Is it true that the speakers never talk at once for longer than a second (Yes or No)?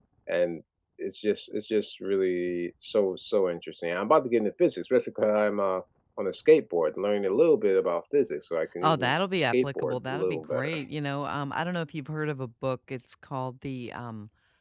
No